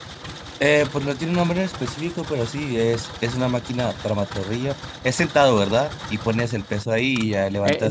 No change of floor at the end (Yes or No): No